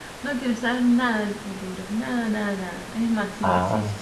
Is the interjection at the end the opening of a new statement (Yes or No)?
No